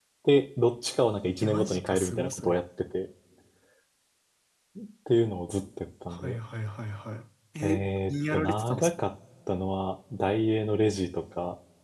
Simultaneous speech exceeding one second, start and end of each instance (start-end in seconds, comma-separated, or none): 1.4-2.6, 7.6-9.0